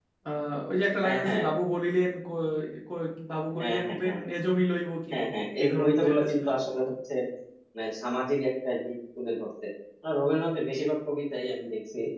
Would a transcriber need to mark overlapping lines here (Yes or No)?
Yes